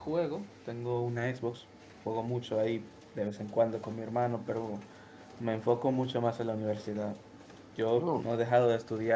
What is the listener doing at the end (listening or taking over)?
listening